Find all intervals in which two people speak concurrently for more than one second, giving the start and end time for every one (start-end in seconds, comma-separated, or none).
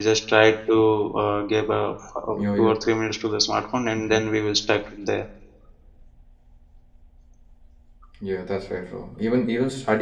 none